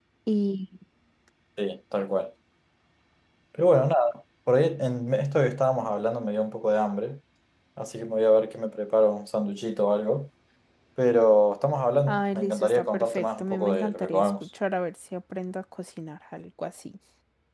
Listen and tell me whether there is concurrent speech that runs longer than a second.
Yes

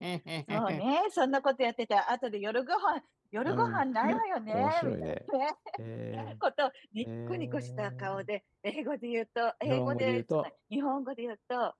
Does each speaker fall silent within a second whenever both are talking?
No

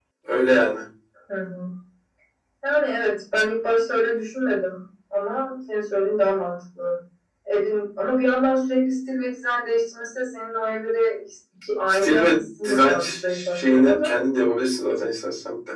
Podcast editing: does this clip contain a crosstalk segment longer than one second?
Yes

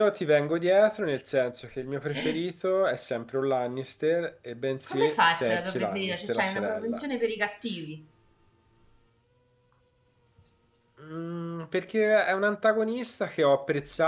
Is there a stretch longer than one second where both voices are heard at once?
Yes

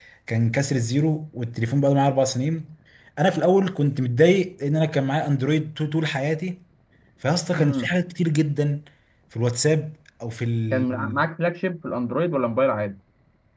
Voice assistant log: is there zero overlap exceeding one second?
Yes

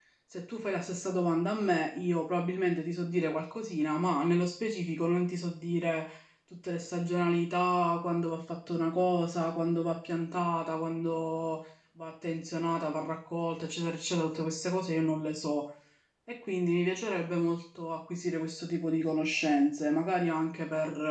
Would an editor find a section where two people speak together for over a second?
No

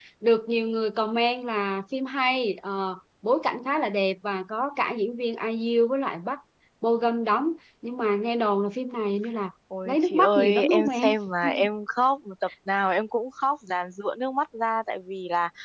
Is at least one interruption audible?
Yes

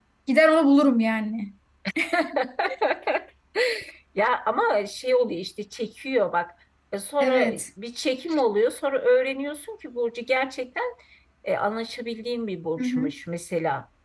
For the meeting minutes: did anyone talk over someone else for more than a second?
No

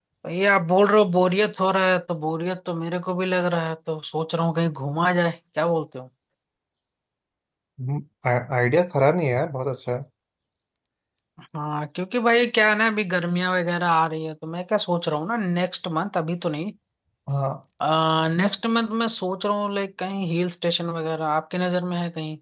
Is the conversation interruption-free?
Yes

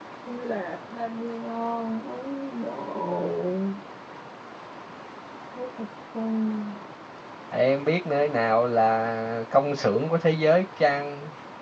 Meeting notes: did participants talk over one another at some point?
No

